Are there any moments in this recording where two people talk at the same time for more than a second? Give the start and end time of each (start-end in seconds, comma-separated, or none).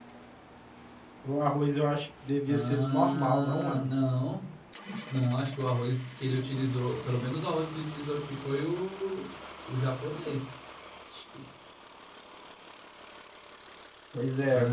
2.5-3.8